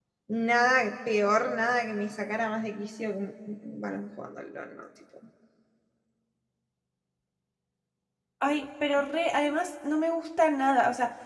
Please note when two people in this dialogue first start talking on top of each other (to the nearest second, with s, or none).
none